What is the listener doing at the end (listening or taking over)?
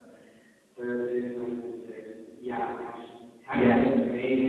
listening